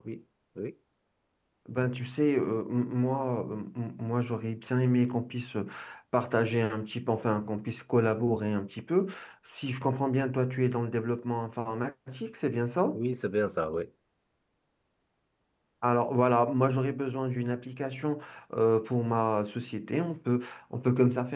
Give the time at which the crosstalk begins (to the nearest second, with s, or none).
none